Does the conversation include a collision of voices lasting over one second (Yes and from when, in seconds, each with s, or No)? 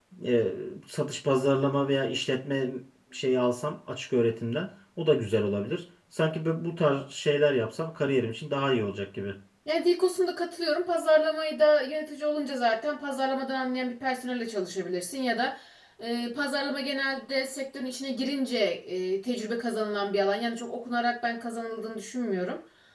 No